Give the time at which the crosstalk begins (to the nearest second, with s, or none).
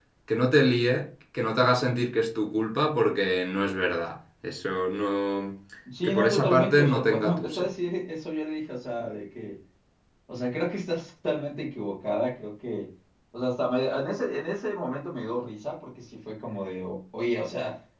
6 s